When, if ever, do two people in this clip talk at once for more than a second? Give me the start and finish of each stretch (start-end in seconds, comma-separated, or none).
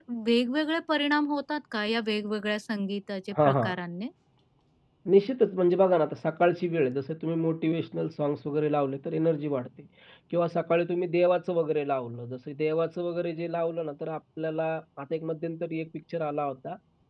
none